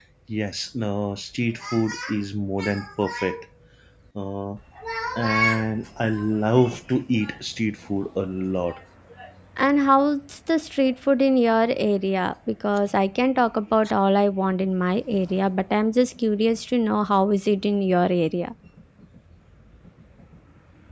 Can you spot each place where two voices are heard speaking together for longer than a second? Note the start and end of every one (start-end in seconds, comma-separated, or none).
none